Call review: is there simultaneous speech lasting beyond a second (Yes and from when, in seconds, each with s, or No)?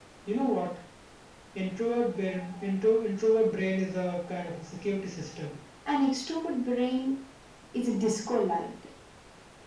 No